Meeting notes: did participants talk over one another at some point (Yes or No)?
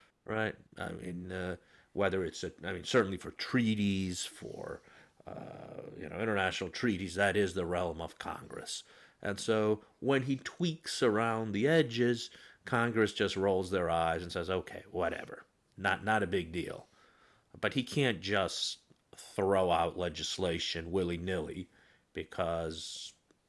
No